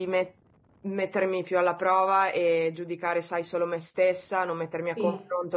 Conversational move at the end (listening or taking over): listening